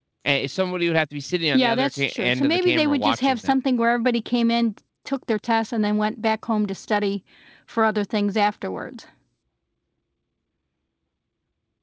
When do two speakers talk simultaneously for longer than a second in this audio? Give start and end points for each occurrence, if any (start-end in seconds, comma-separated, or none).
1.5-3.5